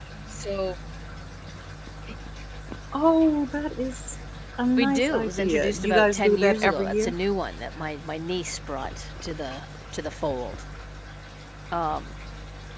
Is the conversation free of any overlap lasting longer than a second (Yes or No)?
No